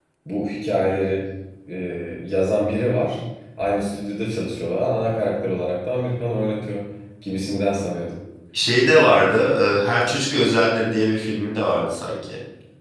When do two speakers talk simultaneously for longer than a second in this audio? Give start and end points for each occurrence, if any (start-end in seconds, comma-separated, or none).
none